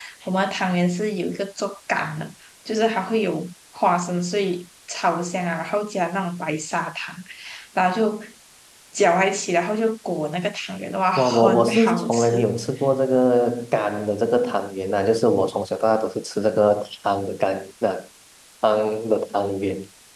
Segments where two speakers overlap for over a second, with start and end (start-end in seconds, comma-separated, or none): 11.2-12.4